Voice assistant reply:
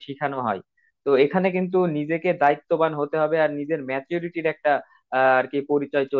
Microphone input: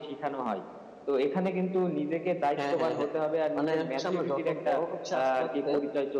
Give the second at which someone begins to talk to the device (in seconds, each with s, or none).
2.6 s